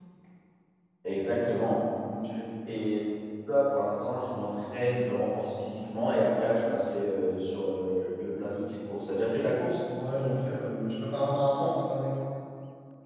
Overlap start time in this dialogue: none

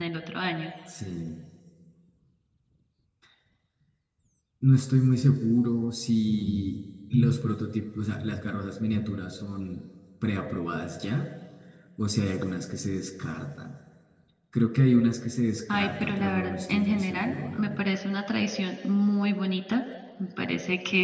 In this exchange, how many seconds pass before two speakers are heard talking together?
16 s

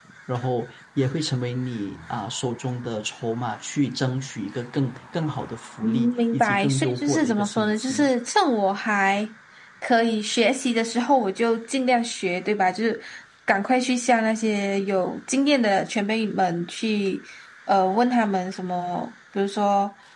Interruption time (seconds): 6 s

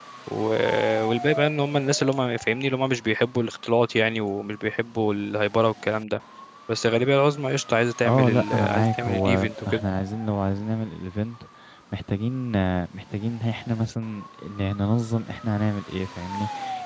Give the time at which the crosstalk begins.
8 s

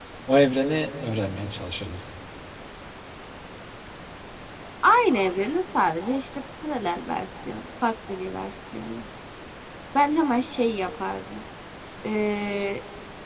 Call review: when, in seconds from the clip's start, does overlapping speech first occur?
none

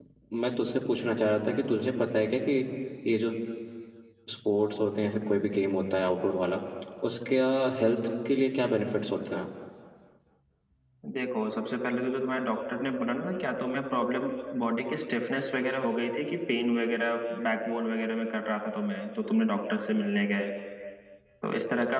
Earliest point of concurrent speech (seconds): none

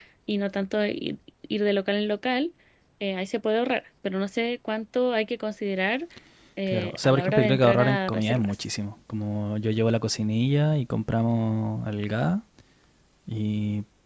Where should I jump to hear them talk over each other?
7 s

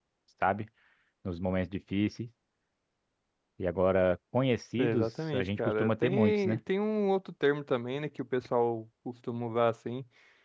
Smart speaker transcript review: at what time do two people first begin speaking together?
5 s

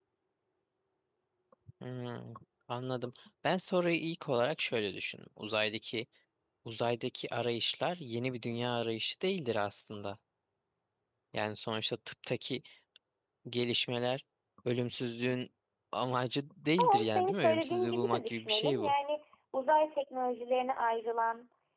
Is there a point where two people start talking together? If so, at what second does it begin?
17 s

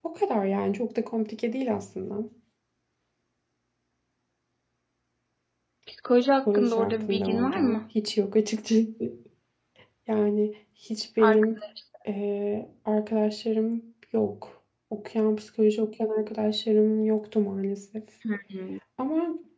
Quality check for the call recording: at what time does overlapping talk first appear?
6 s

